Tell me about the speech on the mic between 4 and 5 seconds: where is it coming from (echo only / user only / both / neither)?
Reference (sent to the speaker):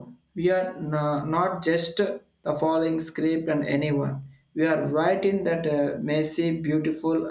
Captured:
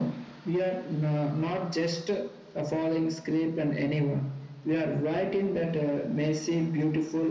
echo only